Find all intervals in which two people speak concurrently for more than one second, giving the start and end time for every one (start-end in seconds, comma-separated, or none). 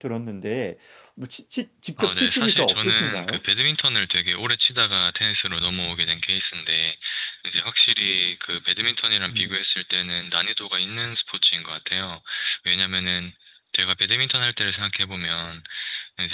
2.0-3.4